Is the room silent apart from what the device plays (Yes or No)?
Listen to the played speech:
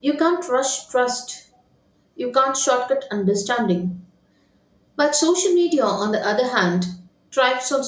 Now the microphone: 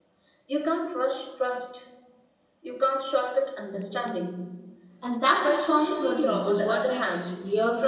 No